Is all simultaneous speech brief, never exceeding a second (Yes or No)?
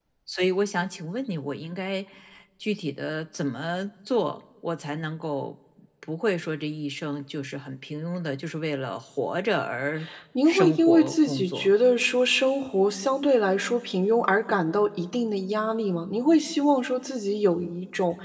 No